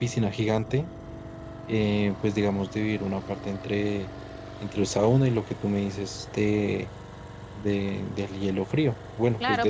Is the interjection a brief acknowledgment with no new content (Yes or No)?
No